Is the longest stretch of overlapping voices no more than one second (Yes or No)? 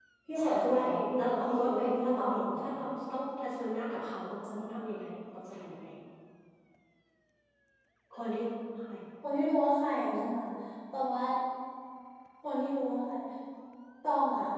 No